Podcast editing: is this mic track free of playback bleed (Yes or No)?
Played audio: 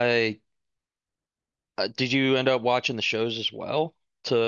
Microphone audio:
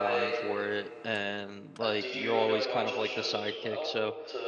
No